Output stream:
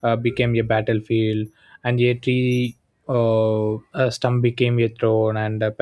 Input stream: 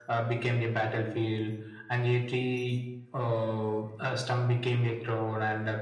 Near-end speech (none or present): none